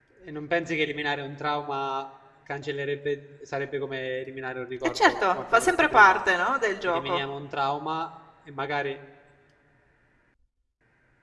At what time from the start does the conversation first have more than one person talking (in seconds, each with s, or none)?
4.8 s